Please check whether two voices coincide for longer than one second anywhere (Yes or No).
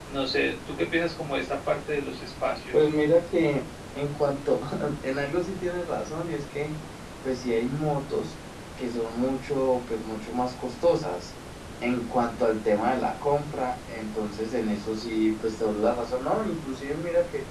No